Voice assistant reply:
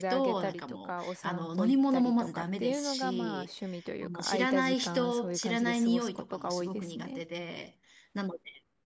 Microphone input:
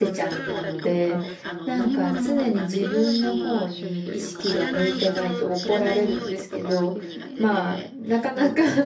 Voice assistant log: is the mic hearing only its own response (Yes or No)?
No